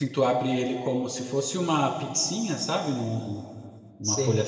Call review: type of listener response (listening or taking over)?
listening